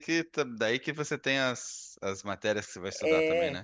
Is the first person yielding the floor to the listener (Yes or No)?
Yes